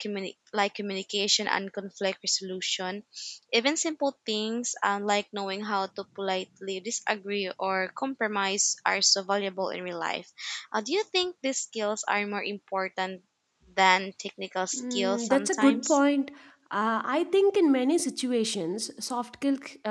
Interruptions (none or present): present